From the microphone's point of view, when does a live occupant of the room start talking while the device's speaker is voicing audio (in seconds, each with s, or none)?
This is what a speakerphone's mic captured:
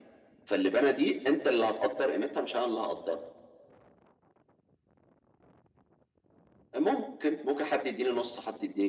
none